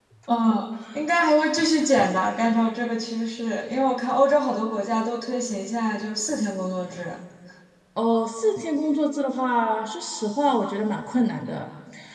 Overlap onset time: none

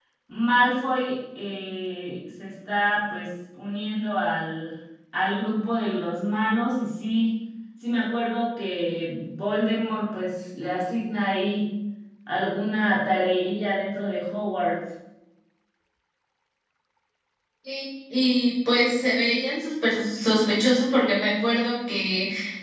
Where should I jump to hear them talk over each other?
none

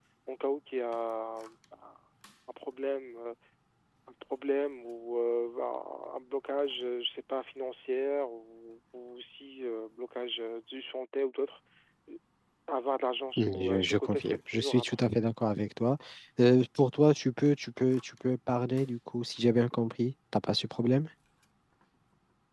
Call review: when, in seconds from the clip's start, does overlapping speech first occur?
13 s

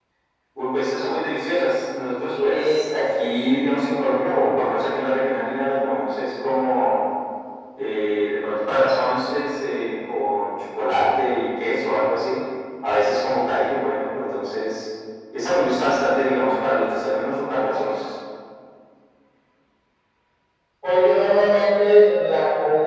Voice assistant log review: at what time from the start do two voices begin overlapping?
2 s

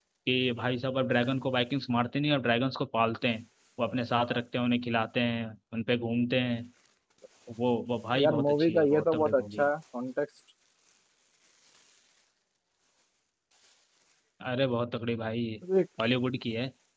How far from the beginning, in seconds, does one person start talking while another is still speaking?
8 s

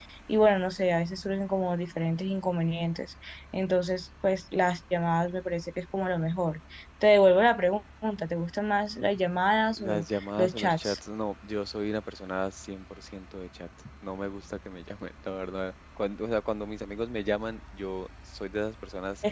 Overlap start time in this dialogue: 10 s

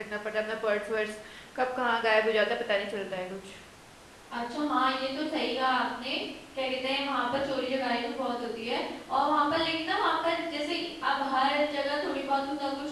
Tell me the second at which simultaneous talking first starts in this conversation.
none

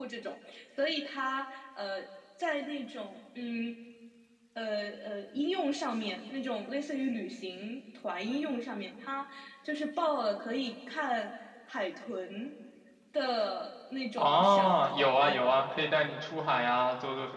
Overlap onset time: 14 s

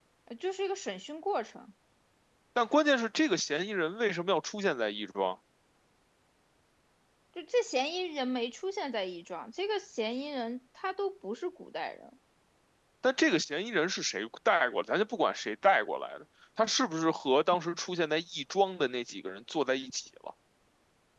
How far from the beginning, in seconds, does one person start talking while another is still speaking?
none

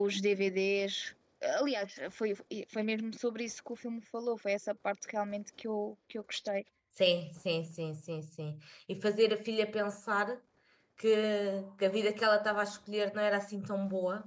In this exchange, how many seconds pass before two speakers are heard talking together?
none

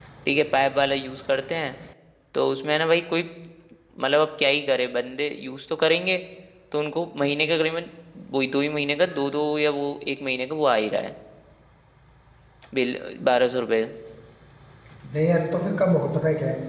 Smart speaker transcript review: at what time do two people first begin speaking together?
none

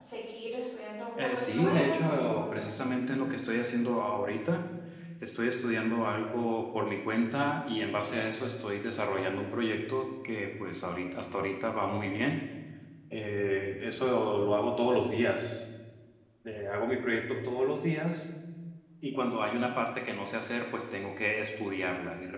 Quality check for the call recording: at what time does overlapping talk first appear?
1 s

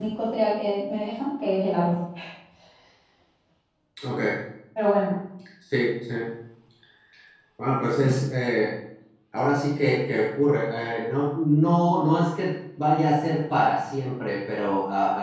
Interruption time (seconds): none

